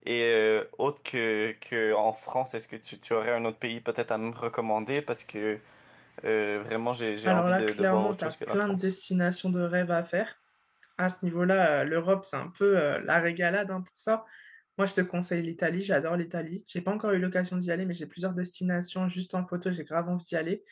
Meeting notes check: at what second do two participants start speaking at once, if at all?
7 s

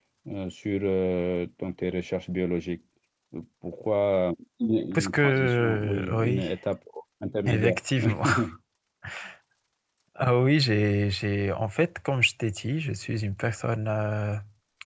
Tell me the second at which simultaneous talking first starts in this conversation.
5 s

